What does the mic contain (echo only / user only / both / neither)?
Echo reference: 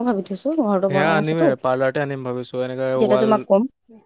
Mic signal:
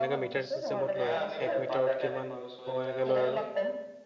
both